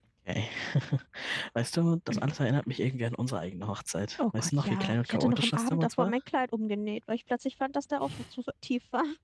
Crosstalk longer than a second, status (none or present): present